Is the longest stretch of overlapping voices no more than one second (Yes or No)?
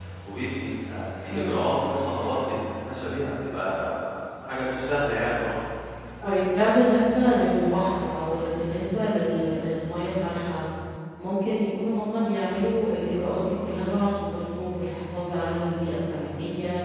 Yes